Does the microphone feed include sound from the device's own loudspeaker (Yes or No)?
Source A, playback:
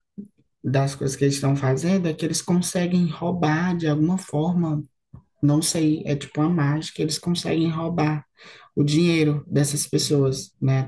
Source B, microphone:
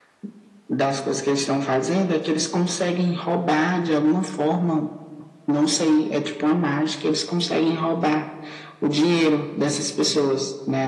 Yes